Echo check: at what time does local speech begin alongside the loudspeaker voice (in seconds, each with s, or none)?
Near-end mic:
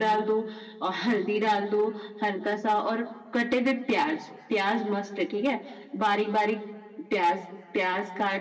none